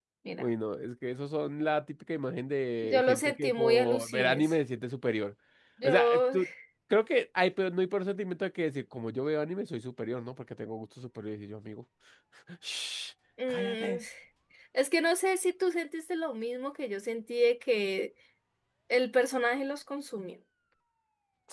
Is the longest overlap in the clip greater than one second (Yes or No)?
Yes